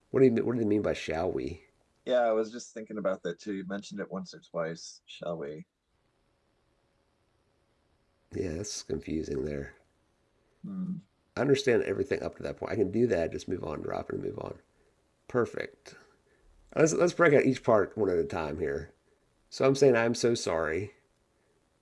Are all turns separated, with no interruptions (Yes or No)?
Yes